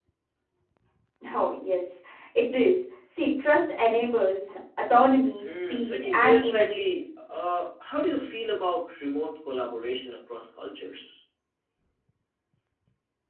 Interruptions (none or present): present